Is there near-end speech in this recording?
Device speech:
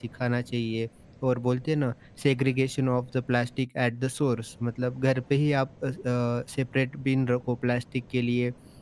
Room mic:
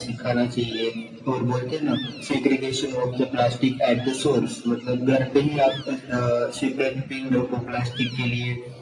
No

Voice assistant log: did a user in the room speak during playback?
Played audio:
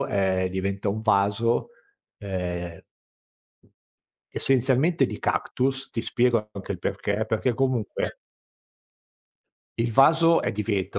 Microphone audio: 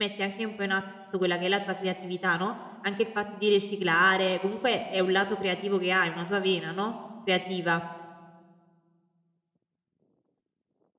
Yes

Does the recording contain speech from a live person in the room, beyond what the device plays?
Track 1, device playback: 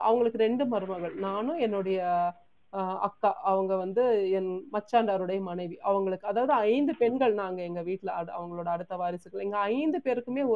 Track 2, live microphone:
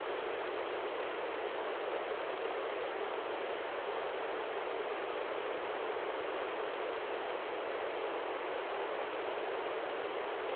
No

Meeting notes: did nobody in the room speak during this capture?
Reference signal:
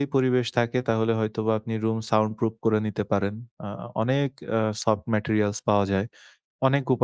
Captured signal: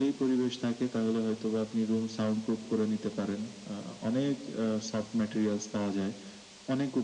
Yes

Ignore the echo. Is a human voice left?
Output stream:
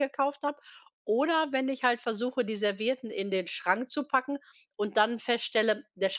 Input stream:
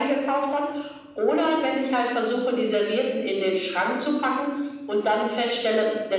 No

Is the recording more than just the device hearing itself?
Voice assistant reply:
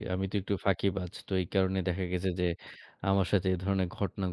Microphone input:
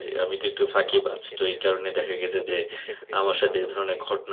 Yes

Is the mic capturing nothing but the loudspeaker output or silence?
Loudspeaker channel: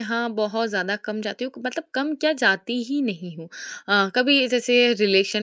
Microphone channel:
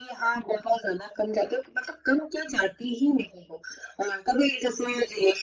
Yes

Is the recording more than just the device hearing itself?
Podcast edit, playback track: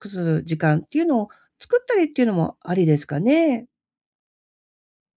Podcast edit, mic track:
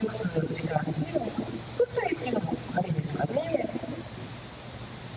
No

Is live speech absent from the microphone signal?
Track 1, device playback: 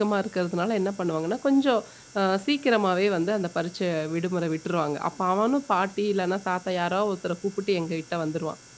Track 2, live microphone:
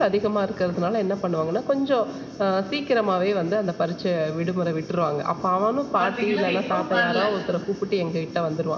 No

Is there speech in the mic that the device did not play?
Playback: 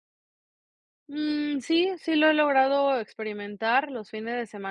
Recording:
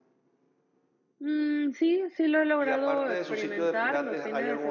Yes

